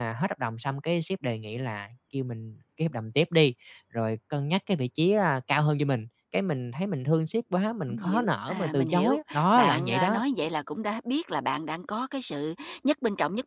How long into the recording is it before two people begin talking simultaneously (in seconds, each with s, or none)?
7.9 s